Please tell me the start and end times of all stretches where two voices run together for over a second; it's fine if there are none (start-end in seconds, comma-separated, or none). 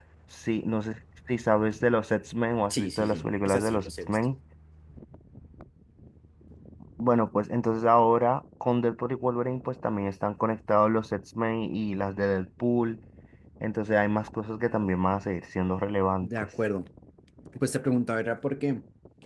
2.7-4.2